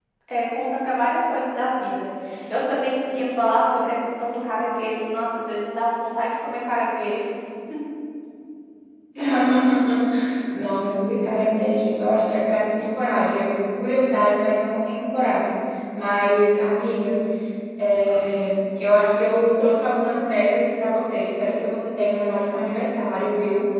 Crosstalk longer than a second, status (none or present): none